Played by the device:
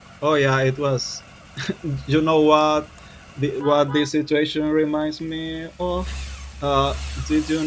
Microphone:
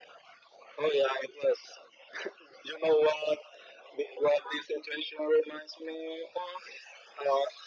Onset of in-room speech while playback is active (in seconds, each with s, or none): none